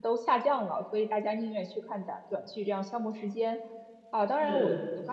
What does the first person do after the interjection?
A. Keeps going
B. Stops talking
A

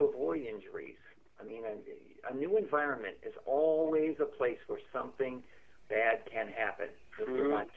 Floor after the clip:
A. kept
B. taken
B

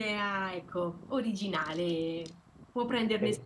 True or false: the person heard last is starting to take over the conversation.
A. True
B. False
A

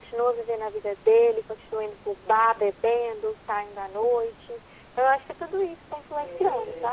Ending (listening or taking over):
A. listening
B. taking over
B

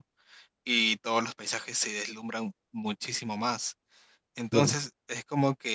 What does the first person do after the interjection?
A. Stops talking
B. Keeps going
B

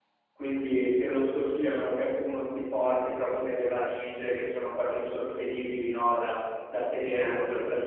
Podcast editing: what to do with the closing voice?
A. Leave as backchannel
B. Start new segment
A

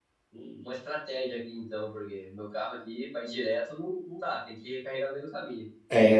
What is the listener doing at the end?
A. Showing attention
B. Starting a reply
B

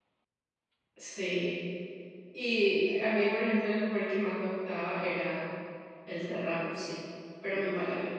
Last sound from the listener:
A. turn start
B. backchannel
A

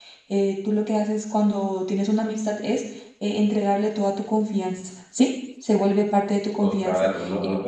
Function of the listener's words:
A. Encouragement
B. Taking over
B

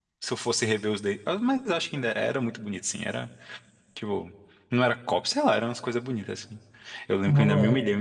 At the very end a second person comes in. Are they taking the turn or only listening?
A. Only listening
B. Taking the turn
A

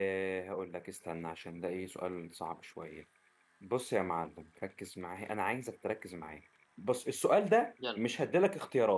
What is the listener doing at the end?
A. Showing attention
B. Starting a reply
A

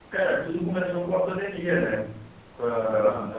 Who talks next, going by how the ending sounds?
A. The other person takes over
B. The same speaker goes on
B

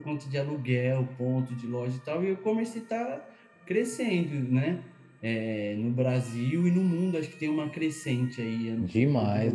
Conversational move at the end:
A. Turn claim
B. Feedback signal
A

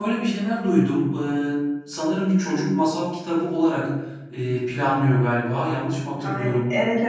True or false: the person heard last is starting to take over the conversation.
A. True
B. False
A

